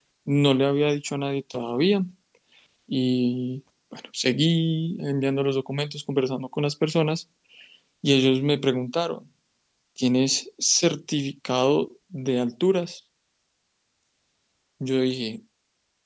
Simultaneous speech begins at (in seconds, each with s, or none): none